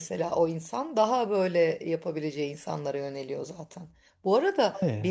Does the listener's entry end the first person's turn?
No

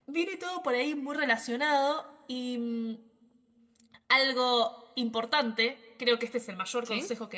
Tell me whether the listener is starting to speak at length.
No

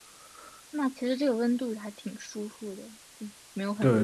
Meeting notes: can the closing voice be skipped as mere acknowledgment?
No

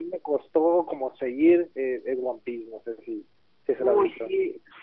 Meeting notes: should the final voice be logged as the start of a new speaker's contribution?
Yes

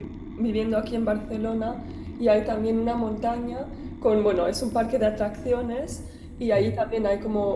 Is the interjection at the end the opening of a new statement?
No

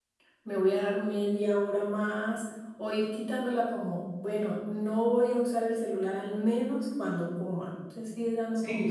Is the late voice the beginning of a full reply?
Yes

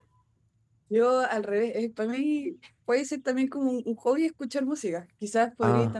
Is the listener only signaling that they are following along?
Yes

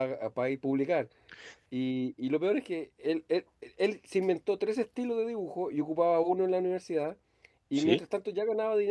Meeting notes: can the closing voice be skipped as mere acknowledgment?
Yes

